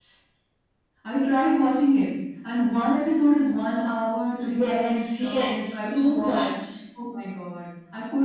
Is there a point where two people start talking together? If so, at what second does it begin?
4.4 s

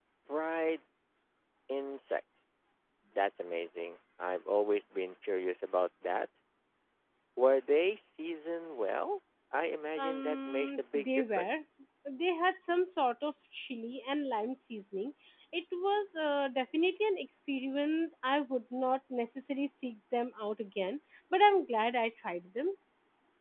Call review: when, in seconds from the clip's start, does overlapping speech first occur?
10.0 s

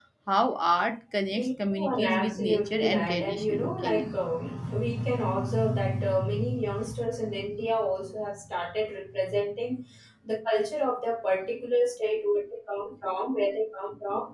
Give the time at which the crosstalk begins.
1.3 s

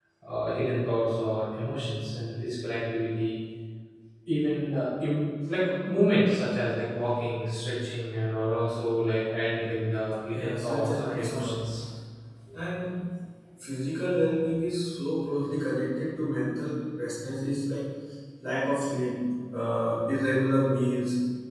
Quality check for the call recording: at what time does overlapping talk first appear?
10.3 s

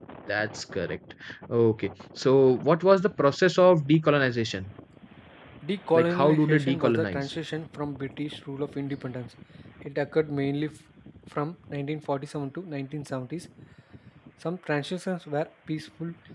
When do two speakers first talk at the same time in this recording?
6.0 s

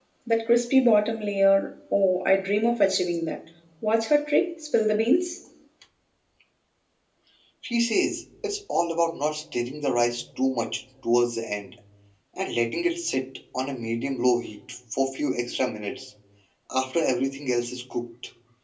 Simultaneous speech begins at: none

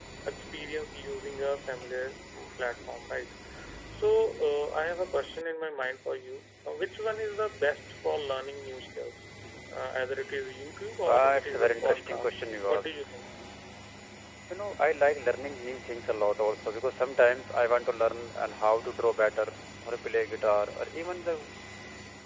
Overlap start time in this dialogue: 11.0 s

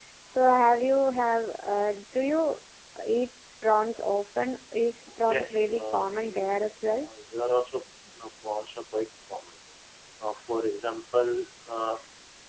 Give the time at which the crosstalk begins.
5.1 s

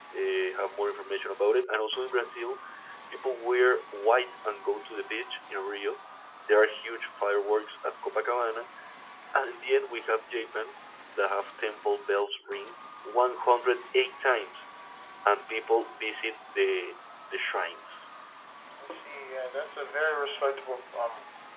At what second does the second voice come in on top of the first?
none

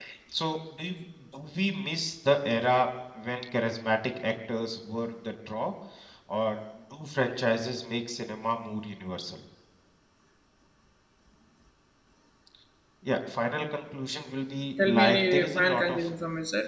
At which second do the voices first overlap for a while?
14.8 s

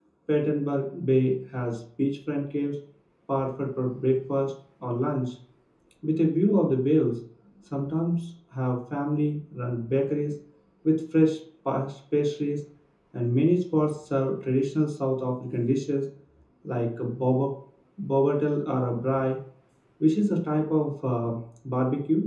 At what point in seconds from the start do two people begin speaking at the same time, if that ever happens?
none

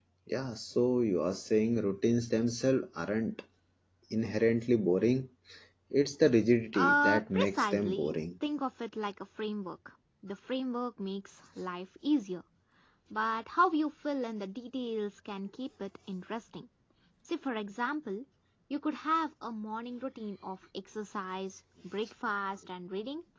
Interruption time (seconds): 6.7 s

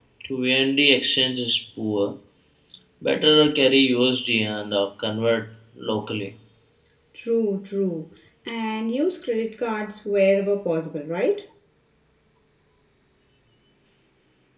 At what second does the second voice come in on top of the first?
none

